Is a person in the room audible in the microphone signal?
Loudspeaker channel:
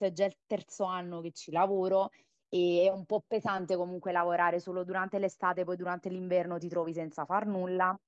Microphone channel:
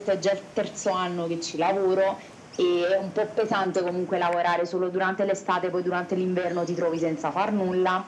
No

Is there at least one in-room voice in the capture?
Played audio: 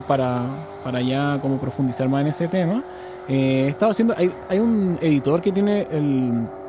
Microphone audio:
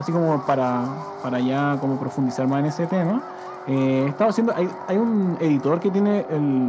No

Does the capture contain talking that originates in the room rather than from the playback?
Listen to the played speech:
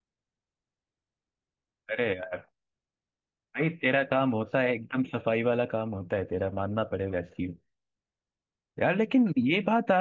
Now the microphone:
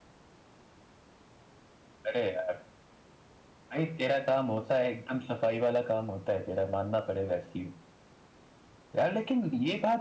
No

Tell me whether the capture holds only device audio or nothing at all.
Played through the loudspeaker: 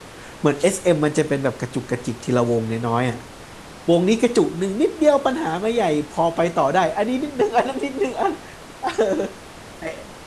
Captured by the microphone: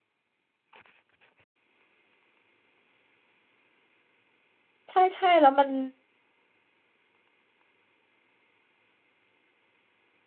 No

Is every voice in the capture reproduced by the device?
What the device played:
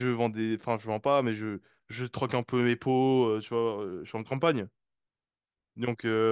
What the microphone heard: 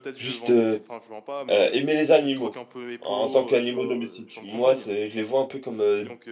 No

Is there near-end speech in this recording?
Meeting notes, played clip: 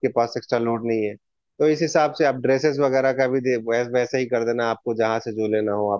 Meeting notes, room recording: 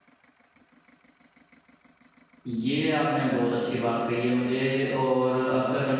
Yes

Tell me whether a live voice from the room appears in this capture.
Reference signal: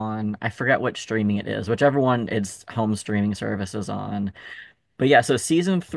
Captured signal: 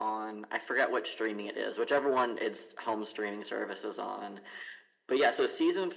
No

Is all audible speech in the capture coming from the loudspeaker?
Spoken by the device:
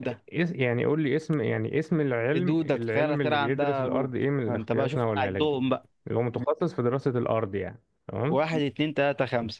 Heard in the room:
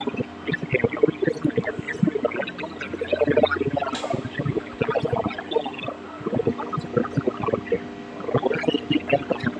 Yes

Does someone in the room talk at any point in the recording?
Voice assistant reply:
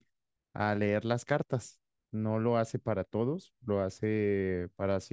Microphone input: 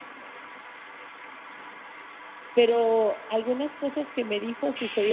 Yes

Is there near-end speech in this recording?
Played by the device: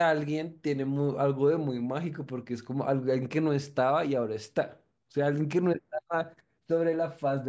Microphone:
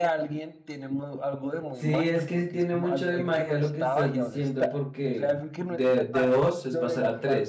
Yes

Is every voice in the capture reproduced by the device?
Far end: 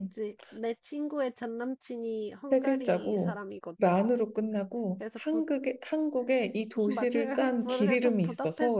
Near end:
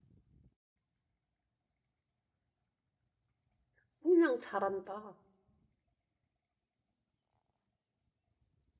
No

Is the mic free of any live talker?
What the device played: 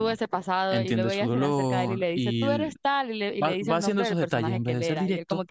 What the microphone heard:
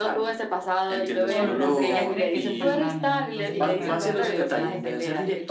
No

